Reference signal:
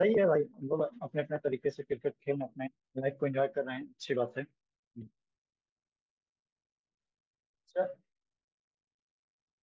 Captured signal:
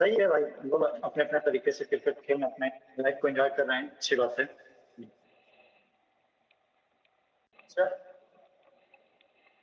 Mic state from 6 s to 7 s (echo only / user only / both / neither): neither